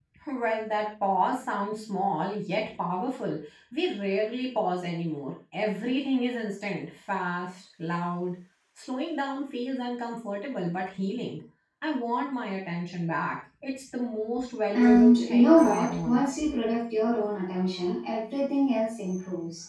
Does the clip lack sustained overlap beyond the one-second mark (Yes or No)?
No